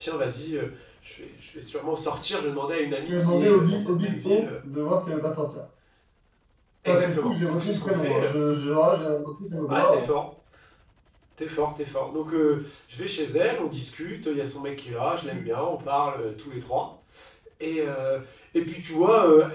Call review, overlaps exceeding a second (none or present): present